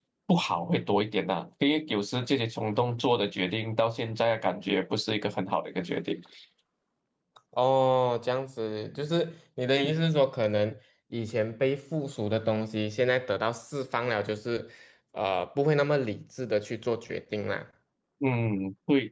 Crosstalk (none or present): none